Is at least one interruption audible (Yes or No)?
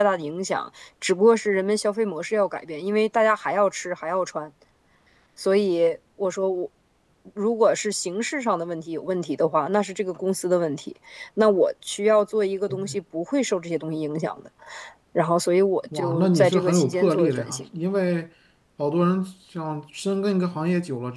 Yes